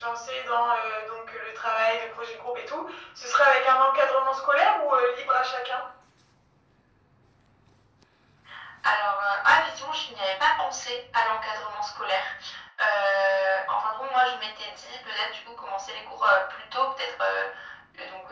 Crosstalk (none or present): none